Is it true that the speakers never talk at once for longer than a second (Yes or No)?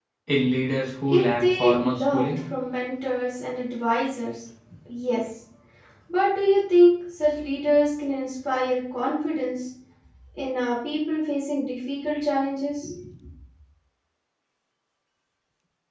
No